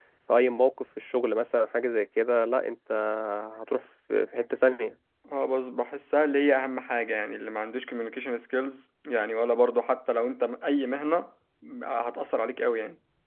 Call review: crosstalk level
none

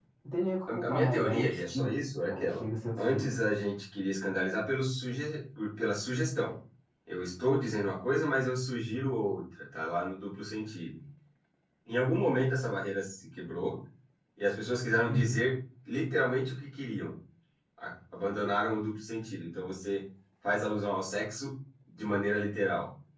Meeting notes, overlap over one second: present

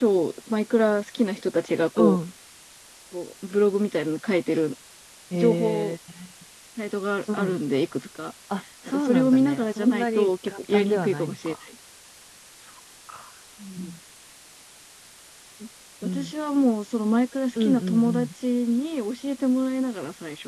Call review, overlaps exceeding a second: present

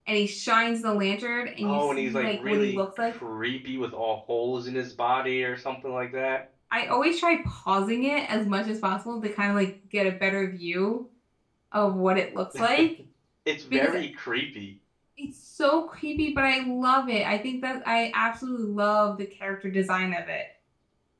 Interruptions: present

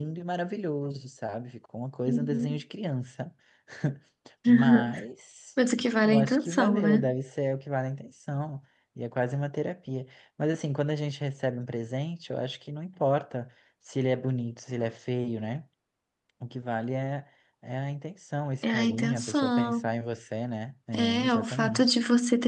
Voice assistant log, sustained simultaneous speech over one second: present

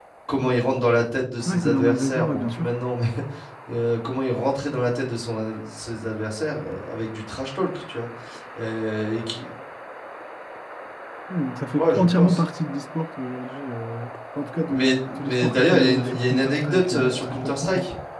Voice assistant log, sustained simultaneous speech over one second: present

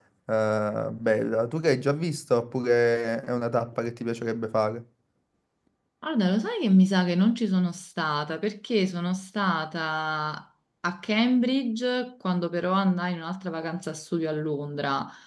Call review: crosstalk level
none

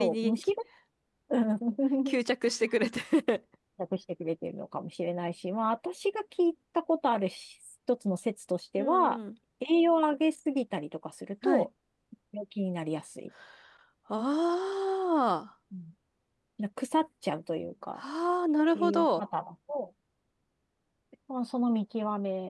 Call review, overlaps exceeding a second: none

